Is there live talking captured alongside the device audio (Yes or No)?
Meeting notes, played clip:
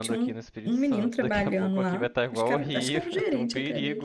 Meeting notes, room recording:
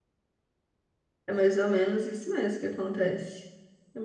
Yes